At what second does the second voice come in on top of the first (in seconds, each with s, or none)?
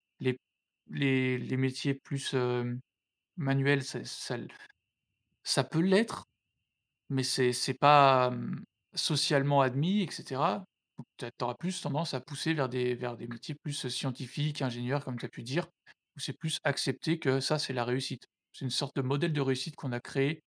none